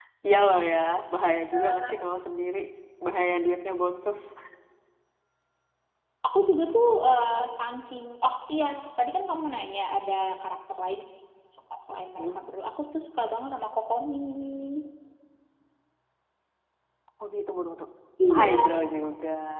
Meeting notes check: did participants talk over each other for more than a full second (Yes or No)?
No